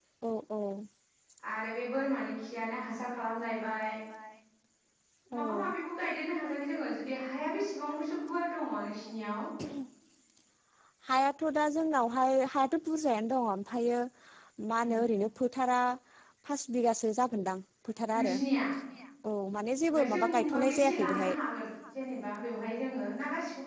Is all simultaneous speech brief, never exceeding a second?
No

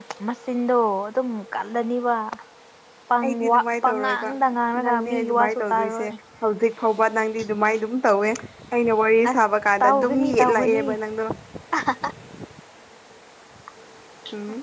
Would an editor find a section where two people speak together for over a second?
Yes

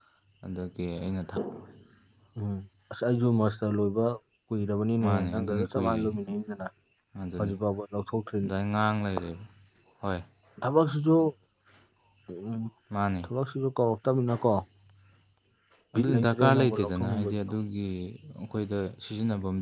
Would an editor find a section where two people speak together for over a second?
Yes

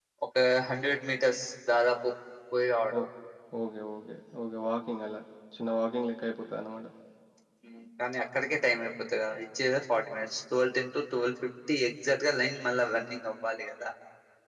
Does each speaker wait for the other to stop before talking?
Yes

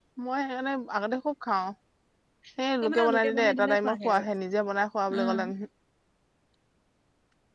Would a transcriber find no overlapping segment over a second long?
No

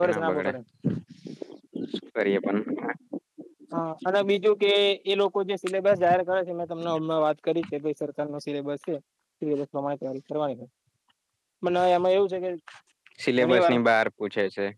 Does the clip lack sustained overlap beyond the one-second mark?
Yes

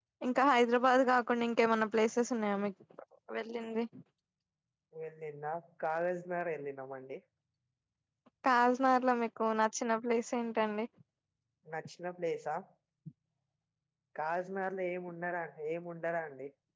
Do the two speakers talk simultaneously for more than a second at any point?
No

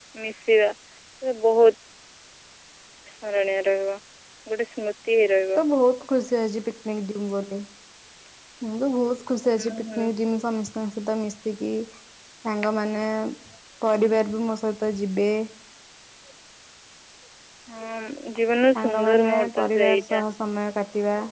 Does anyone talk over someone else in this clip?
Yes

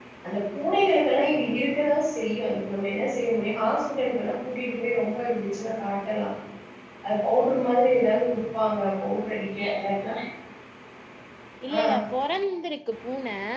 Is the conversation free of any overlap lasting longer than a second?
Yes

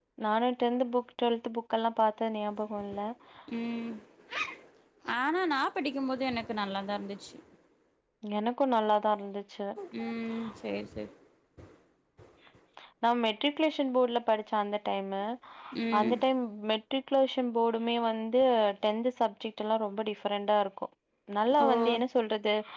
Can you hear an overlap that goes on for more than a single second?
No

